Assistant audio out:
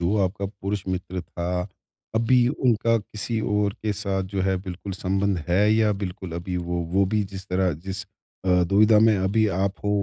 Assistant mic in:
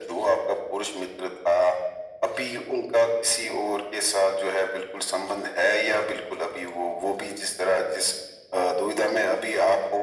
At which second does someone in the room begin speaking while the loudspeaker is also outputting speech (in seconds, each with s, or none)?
none